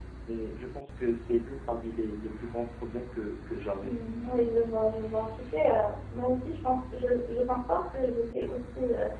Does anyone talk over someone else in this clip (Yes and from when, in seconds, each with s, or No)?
No